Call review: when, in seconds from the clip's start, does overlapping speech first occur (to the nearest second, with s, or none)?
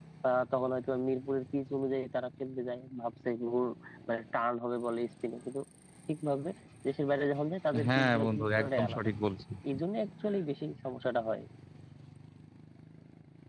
8 s